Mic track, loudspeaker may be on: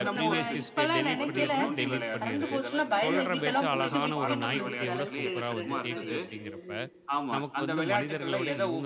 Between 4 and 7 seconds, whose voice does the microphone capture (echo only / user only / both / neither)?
both